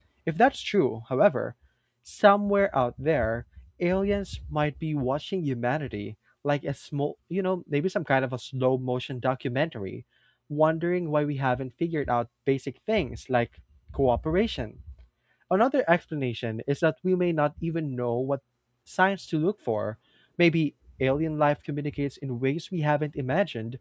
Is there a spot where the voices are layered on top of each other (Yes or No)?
No